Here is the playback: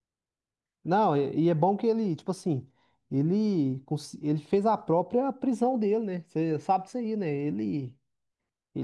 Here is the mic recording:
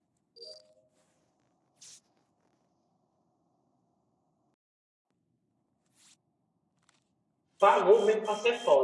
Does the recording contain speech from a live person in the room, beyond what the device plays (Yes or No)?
Yes